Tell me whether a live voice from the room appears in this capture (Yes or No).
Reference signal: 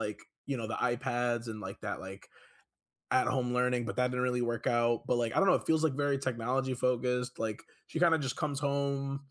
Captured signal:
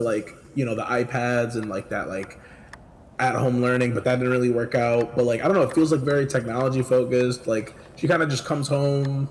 No